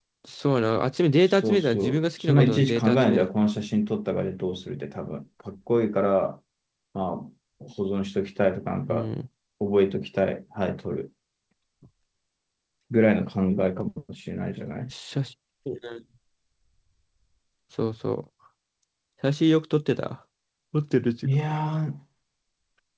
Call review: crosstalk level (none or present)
present